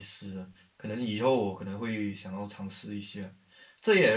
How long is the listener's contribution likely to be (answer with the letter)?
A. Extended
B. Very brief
B